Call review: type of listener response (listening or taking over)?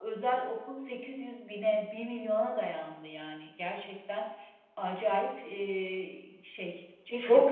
taking over